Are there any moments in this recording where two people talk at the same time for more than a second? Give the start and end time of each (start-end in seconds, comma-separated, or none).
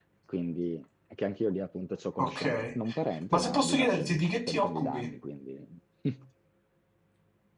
3.3-5.1